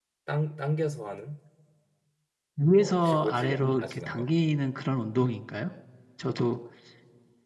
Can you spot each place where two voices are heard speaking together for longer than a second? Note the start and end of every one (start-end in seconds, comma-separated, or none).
2.7-4.2